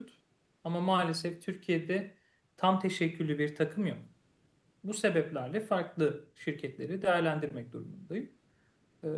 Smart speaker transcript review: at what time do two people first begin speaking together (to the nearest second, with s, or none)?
none